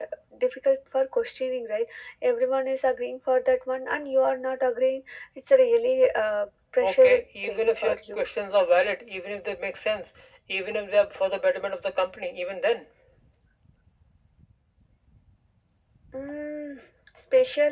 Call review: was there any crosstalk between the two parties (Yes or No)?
Yes